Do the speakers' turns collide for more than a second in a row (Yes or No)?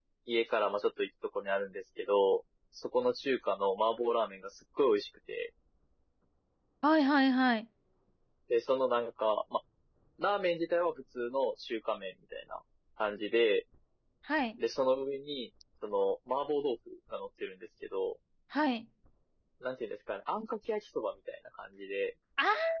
No